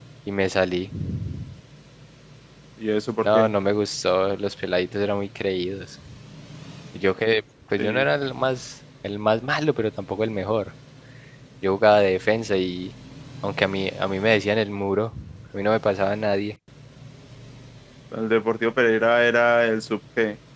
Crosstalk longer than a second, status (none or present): none